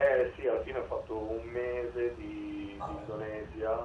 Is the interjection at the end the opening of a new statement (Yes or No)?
No